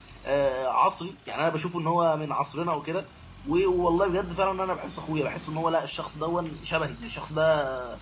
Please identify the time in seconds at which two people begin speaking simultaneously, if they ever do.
none

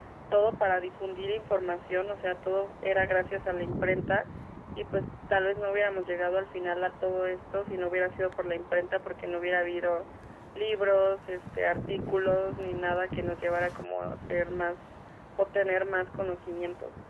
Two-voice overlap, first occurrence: none

